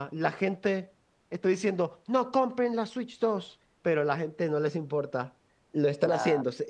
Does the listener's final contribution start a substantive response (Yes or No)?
No